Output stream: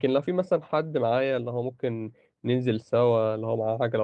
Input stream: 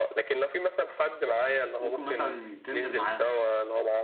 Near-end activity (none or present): present